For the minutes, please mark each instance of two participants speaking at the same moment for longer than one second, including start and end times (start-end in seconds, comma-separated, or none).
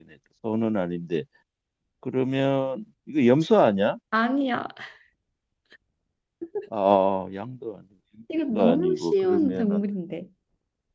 8.6-9.8